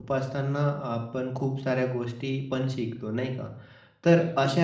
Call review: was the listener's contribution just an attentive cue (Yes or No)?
Yes